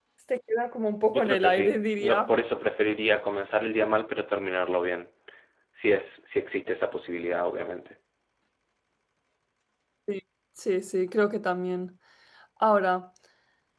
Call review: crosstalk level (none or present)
present